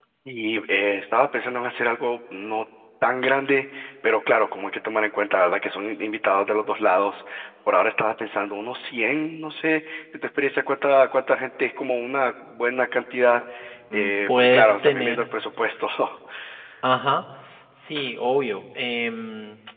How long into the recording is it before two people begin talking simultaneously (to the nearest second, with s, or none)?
14 s